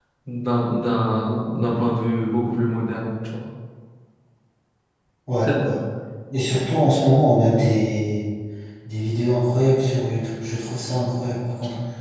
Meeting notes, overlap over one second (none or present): none